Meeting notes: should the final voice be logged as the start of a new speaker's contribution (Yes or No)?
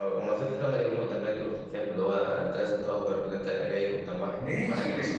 Yes